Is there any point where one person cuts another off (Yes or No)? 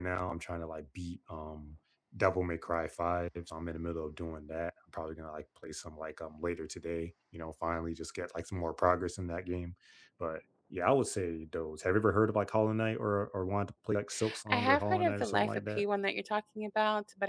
Yes